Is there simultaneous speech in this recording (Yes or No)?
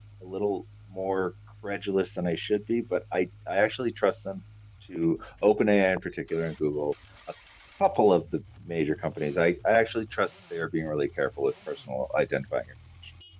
No